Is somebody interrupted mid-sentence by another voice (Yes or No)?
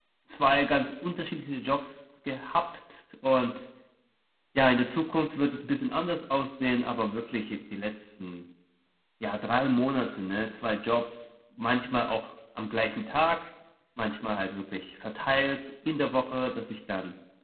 No